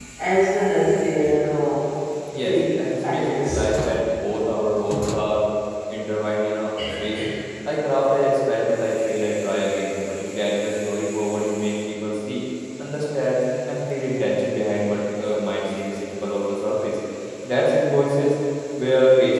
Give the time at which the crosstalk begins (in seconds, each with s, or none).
2.5 s